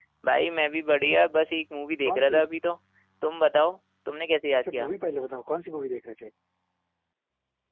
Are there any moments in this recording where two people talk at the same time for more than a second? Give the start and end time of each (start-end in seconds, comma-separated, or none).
none